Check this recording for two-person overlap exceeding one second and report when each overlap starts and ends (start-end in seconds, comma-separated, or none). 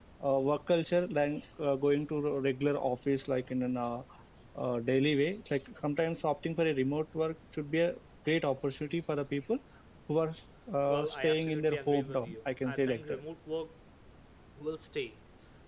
10.9-13.2